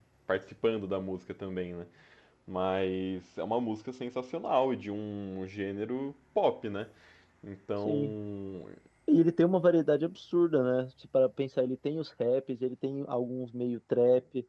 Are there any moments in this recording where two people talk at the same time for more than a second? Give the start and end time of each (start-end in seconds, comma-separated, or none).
none